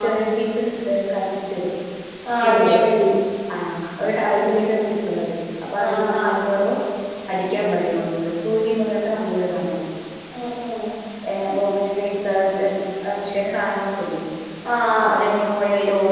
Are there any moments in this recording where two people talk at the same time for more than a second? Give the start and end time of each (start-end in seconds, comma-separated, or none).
none